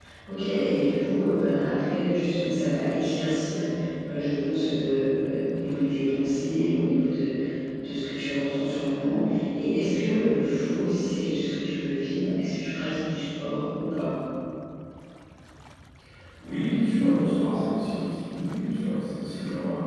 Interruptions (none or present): none